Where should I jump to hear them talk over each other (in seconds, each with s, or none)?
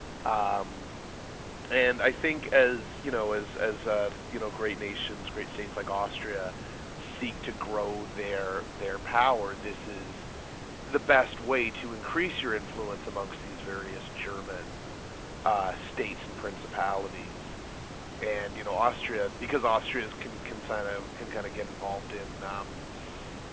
none